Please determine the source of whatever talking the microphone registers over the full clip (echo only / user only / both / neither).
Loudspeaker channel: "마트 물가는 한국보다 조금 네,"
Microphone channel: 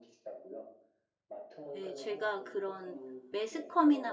both